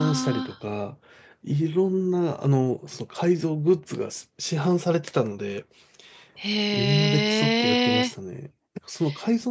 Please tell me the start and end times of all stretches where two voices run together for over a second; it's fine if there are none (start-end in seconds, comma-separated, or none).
6.7-8.1